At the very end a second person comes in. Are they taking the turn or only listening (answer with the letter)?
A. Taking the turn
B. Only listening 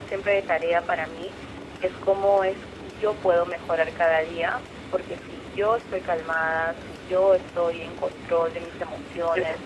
B